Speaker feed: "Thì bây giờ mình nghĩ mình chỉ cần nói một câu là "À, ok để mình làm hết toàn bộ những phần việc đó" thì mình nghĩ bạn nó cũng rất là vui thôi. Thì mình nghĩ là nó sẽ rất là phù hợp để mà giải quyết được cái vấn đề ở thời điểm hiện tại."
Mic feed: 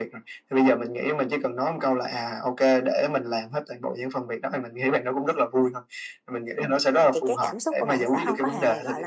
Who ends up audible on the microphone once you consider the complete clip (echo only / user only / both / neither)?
both